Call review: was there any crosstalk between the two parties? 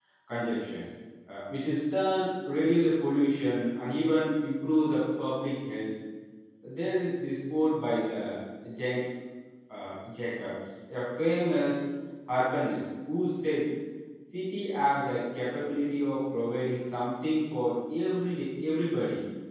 No

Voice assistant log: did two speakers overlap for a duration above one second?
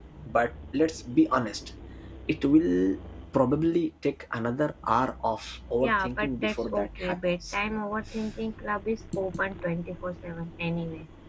Yes, from 5.8 s

